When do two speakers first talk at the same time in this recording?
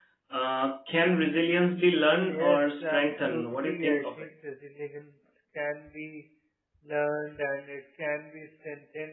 2.1 s

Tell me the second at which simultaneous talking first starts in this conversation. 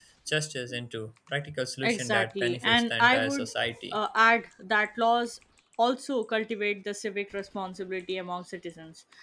1.8 s

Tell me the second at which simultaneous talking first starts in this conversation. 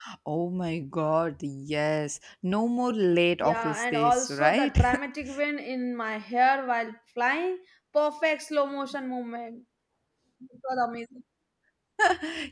3.4 s

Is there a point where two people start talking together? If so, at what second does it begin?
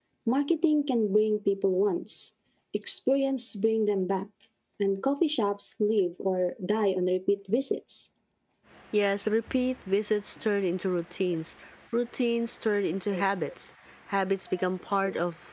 none

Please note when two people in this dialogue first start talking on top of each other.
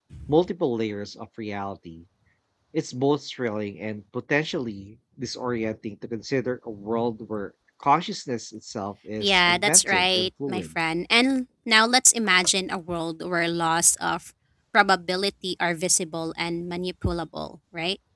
9.2 s

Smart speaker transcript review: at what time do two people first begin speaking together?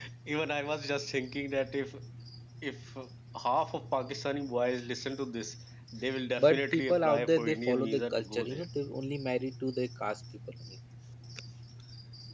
6.4 s

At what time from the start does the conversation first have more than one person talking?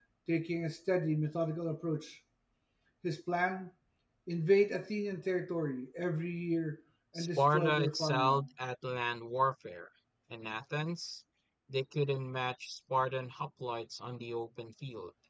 7.1 s

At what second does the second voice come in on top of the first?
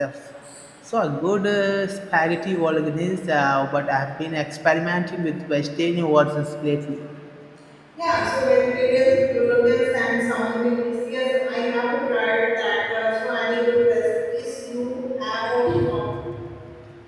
none

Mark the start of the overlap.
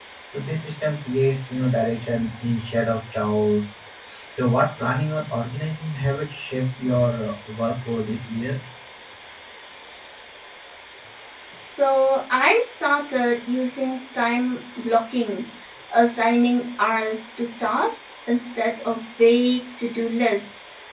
none

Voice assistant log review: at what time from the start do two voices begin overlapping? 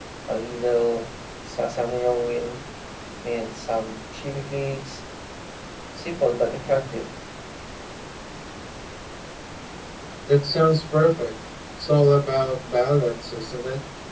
none

